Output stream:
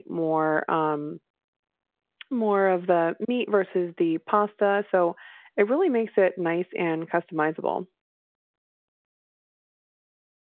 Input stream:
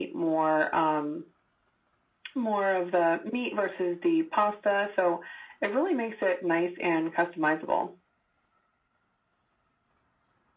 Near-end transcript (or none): none